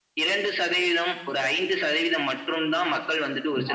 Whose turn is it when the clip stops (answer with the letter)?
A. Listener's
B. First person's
B